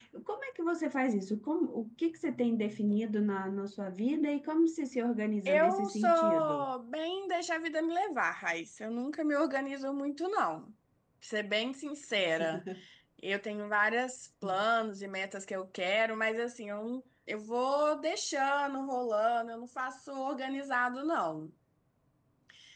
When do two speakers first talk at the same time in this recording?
5.5 s

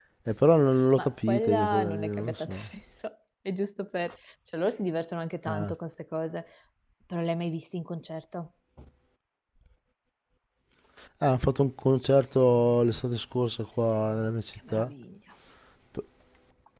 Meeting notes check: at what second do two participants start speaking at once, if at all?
1.0 s

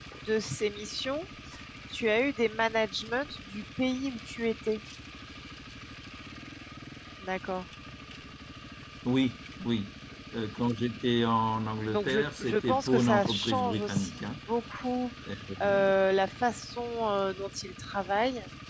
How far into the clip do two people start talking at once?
11.9 s

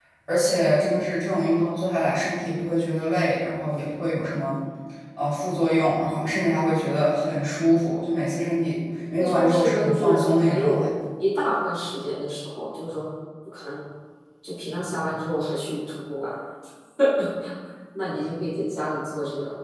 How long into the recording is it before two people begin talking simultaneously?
9.1 s

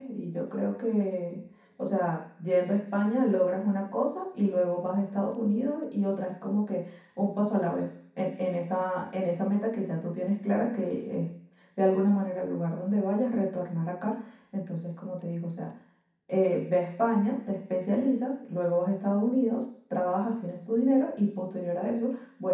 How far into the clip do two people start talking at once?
none

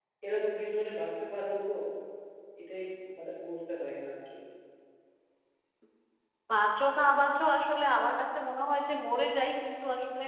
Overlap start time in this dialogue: none

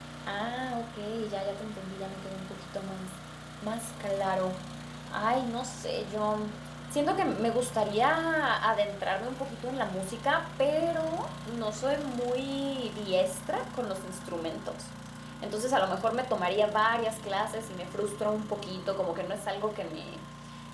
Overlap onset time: none

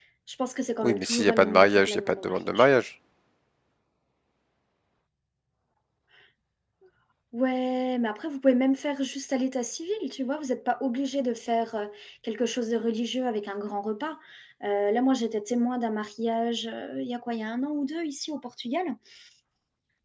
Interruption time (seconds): 0.8 s

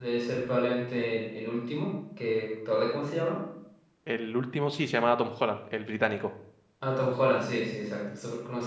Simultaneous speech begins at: none

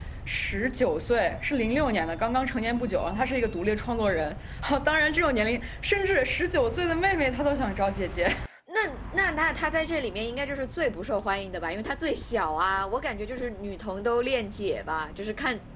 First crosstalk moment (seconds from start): none

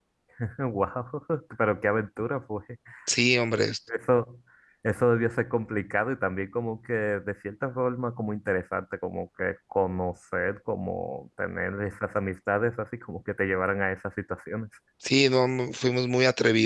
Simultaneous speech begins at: none

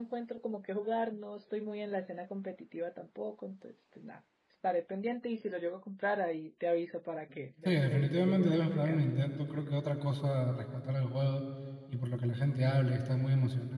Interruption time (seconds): 7.7 s

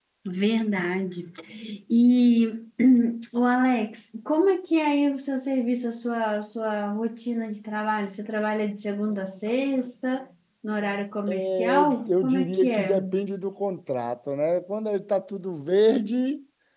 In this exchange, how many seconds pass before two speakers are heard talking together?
11.3 s

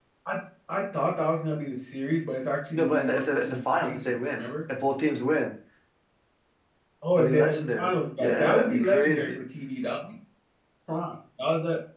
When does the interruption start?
2.7 s

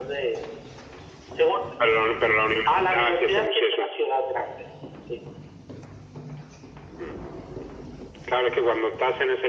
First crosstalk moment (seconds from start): 2.7 s

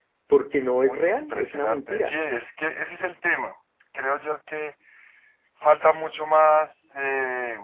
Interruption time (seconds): 0.8 s

